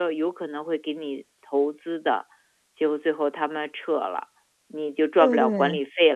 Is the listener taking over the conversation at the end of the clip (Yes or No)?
No